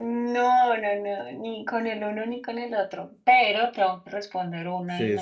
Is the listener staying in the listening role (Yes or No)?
No